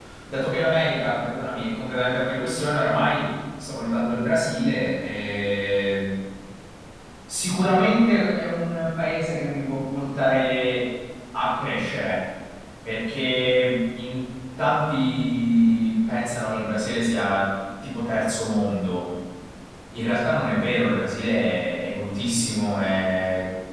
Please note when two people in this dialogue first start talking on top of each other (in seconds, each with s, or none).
none